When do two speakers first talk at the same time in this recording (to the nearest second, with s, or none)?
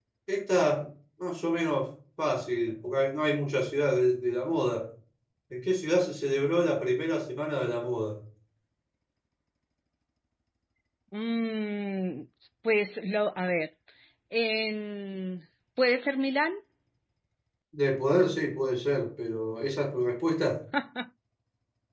none